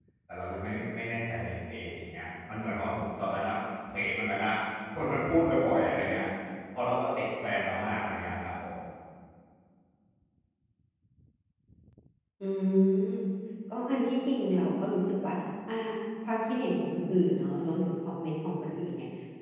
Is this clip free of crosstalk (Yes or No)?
Yes